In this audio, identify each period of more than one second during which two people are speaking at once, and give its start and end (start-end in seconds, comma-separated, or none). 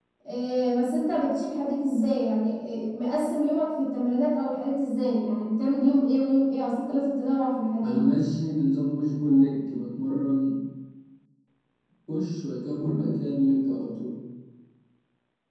none